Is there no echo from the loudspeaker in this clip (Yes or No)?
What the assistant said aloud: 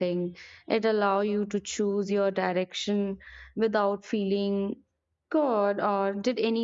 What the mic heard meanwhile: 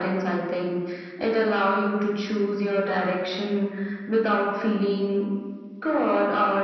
No